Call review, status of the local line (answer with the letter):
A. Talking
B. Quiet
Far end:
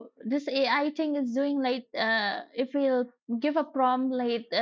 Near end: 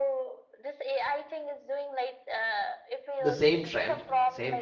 A